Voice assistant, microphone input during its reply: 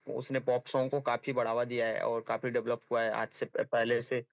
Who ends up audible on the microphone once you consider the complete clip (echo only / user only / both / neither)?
echo only